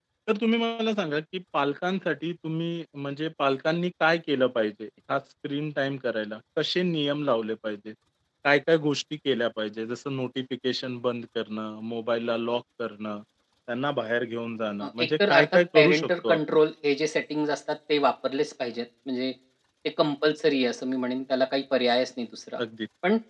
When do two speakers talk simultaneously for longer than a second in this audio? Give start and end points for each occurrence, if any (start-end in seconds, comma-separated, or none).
14.8-16.6